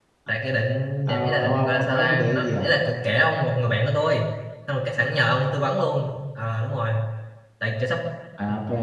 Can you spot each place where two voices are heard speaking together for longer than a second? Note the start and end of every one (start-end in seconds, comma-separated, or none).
1.1-2.7